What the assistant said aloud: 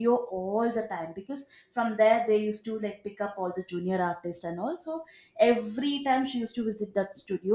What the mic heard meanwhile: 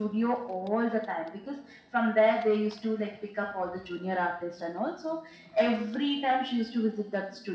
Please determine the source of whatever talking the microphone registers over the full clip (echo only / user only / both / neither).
echo only